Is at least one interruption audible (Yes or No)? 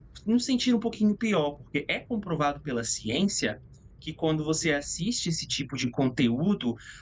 No